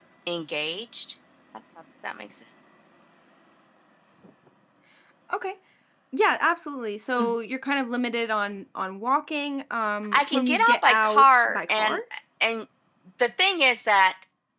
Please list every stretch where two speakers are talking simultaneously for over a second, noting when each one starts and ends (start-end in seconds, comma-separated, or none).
10.1-12.0